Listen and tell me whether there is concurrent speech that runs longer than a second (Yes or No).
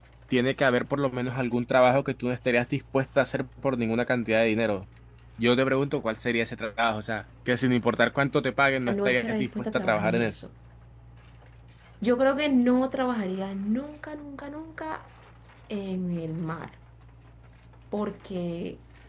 Yes